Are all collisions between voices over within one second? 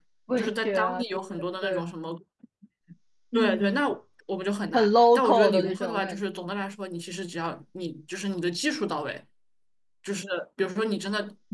No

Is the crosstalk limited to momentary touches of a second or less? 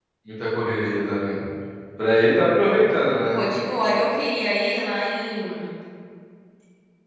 Yes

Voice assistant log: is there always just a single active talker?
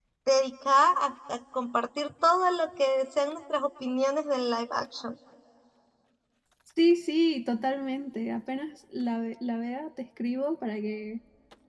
Yes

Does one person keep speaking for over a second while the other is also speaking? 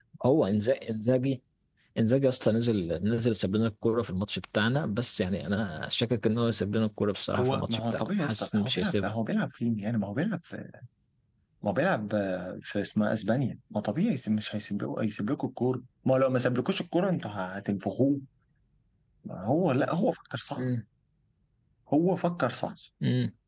Yes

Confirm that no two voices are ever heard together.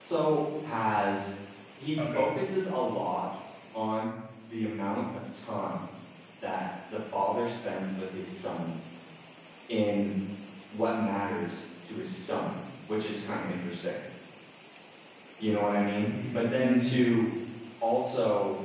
No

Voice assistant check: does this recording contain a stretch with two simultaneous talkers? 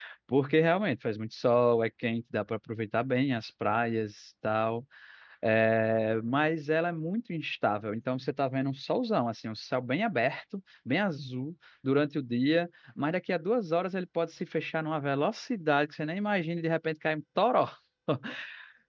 No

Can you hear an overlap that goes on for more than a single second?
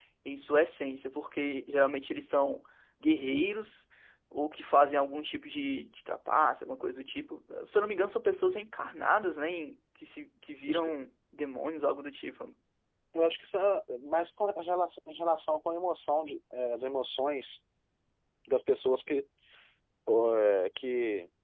No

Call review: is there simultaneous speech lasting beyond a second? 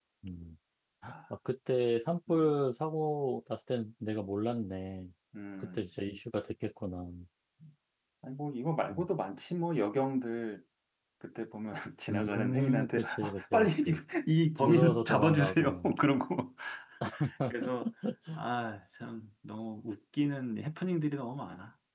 Yes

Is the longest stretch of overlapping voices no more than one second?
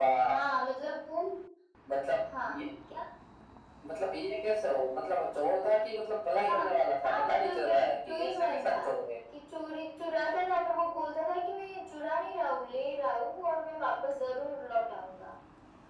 No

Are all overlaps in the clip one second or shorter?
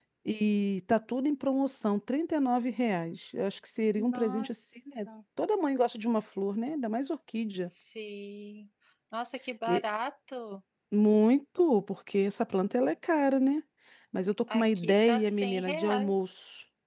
No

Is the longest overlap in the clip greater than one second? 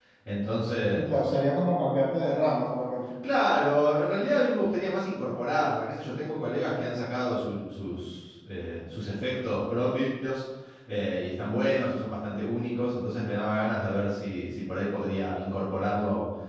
No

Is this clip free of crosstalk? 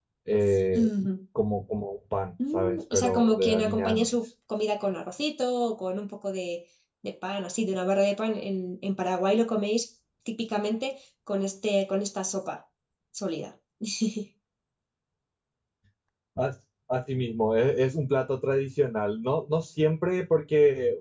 No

